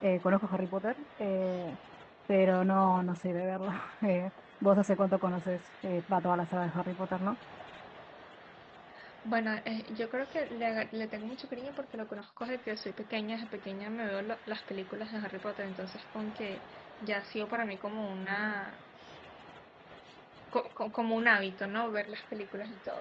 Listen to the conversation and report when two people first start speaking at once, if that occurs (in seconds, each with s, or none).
none